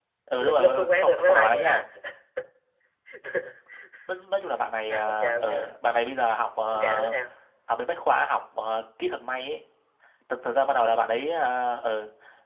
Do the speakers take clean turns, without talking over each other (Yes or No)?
No